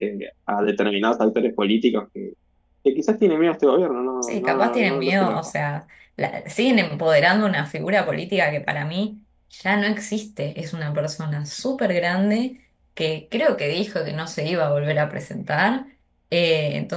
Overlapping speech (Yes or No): Yes